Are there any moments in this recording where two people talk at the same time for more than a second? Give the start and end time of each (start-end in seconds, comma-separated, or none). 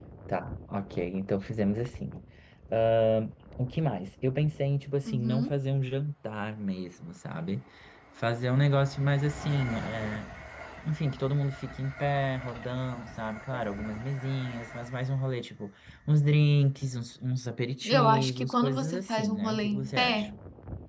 17.8-20.3